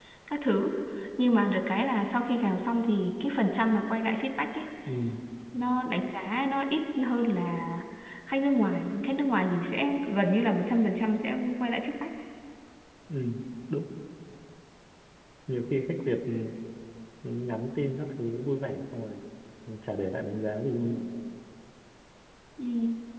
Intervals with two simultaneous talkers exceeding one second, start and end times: none

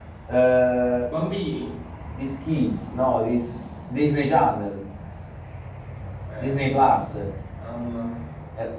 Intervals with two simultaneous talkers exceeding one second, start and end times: none

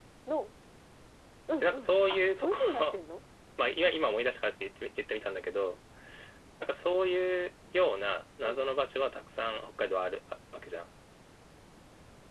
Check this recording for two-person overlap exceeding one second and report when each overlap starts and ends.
1.6-3.0

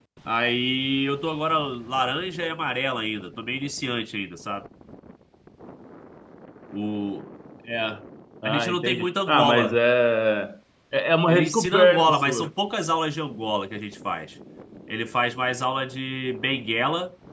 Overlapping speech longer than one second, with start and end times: 8.4-9.8, 11.3-12.5

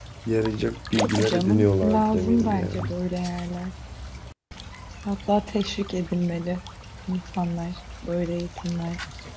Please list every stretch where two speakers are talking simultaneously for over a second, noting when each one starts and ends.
1.2-3.0

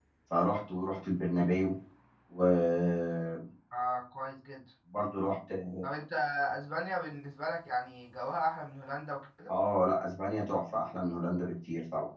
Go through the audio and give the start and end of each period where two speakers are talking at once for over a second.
none

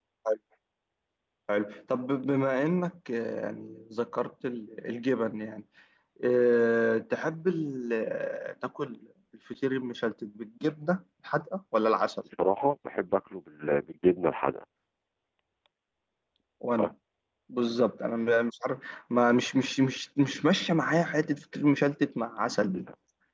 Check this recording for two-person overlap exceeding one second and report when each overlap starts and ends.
none

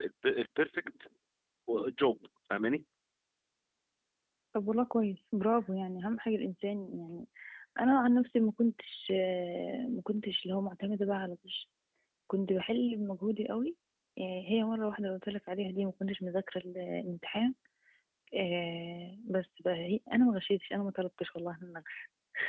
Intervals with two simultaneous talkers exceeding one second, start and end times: none

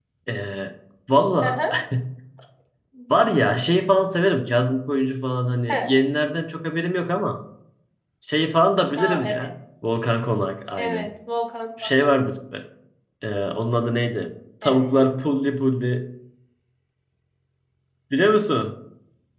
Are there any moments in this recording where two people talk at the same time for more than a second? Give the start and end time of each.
none

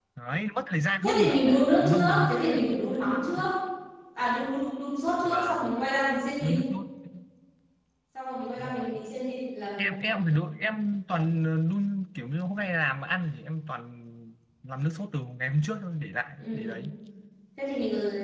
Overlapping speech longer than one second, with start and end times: 1.0-2.4

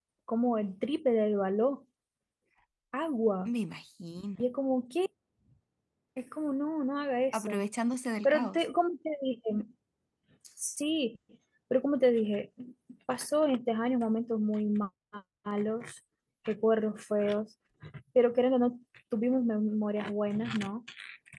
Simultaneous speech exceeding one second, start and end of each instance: none

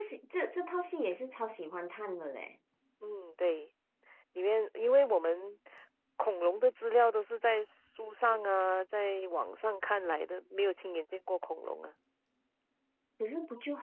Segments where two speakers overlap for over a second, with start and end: none

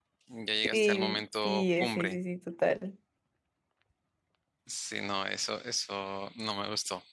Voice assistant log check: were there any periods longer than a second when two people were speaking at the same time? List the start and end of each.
0.7-2.2

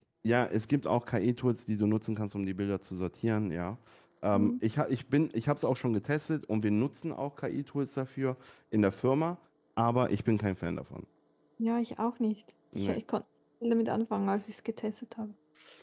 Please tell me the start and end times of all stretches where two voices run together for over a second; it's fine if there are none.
none

